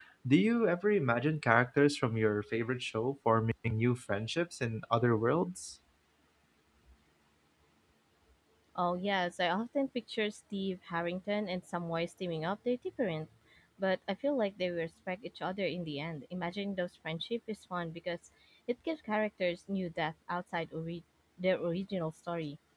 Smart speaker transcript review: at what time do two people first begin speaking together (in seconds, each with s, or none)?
none